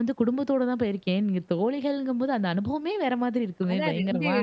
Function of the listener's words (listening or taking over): taking over